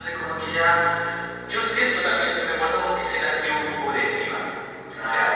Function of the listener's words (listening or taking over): taking over